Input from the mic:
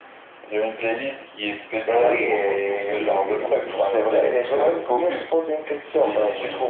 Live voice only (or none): C'est,